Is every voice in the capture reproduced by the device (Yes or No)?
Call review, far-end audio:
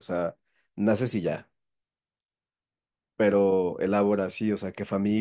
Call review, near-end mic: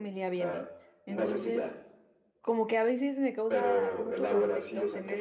No